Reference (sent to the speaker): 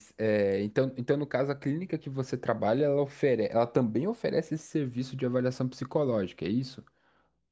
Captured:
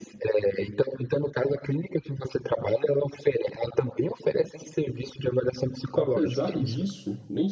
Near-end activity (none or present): present